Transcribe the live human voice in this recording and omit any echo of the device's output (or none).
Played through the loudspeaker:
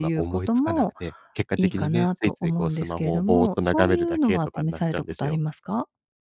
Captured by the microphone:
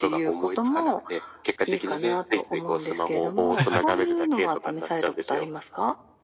はいはい。